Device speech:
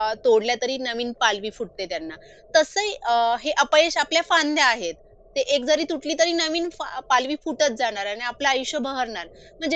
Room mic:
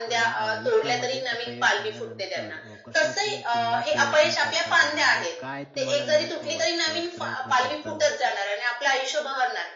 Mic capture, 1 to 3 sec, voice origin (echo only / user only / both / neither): both